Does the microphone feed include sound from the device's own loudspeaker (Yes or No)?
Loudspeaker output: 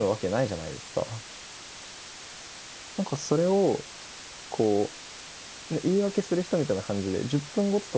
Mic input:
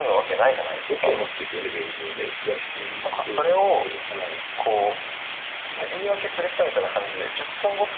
Yes